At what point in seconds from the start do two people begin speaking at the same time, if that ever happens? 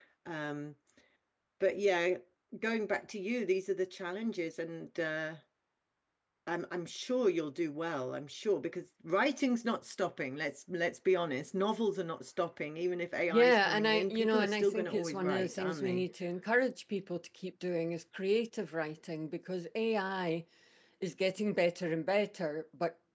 13 s

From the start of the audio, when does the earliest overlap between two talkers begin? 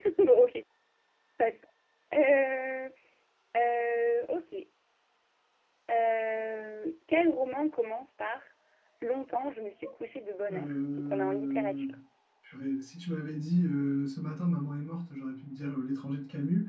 10 s

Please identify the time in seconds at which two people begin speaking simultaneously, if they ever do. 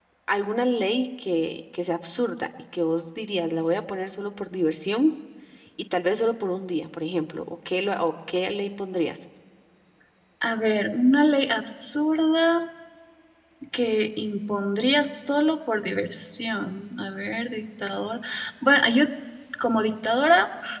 none

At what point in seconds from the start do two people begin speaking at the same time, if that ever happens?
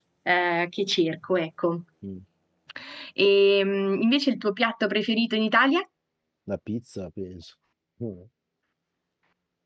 none

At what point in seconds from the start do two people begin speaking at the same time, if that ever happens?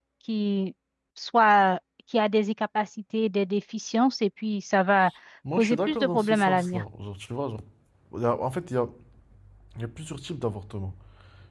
6 s

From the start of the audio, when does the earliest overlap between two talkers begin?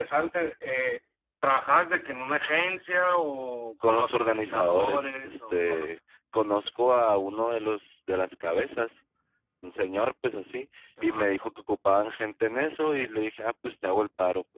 4 s

